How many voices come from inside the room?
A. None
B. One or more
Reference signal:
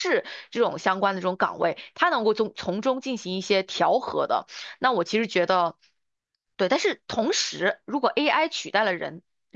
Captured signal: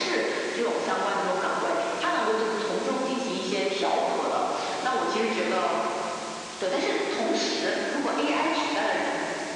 A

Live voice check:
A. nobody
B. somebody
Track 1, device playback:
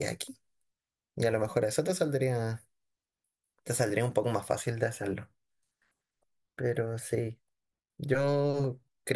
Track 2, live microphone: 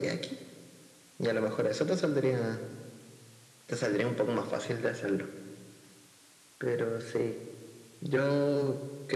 A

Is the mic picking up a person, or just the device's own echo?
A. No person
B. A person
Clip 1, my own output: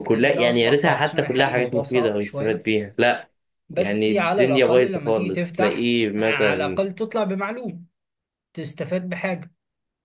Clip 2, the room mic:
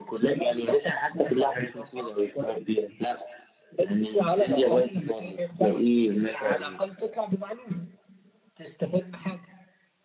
A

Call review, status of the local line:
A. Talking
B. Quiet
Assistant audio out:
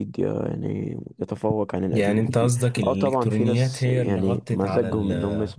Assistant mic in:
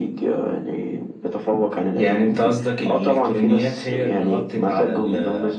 B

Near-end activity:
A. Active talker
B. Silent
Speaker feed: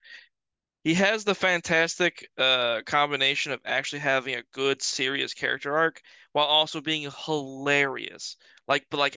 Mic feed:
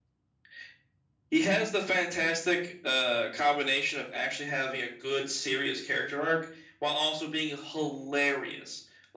B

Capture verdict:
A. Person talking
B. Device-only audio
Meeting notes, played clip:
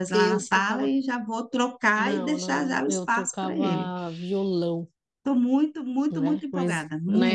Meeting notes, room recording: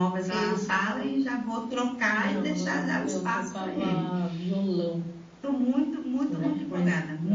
B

